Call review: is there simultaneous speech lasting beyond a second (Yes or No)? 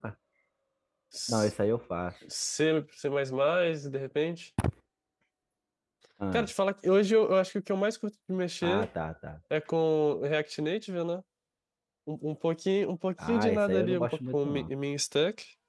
Yes